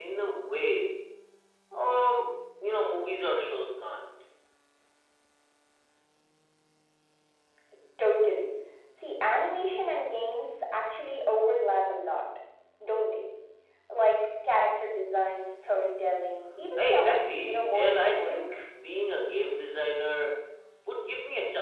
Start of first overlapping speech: 16.8 s

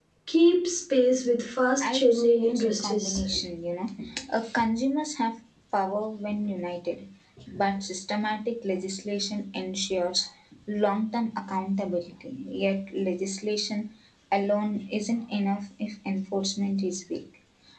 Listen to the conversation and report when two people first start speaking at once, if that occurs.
1.8 s

